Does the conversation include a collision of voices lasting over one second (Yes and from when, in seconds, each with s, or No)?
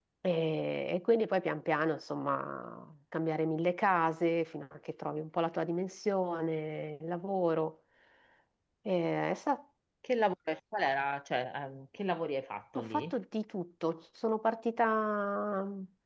No